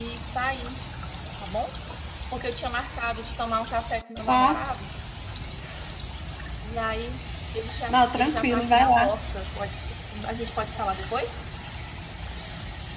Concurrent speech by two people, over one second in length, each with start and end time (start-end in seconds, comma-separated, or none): 7.9-9.2